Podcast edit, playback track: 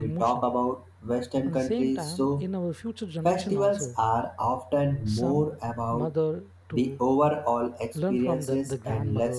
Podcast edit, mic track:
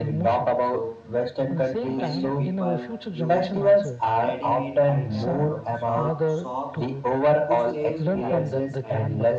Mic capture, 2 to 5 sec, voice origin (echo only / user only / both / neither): both